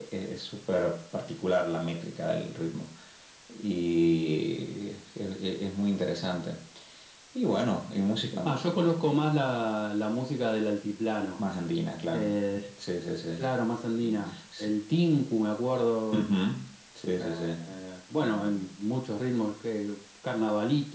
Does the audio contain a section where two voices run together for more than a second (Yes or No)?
No